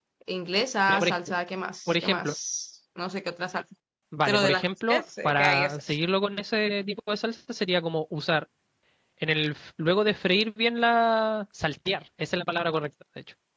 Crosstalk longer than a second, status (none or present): present